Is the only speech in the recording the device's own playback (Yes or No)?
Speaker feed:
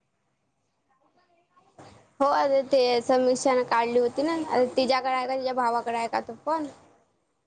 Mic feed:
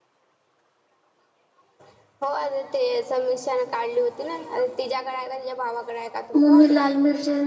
No